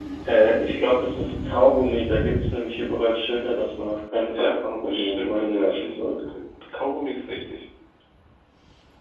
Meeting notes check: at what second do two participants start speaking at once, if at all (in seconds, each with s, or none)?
4.1 s